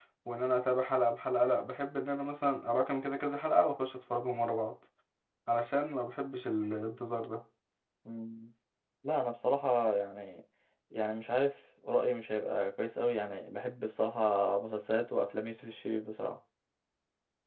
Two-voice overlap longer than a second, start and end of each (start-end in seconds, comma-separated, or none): none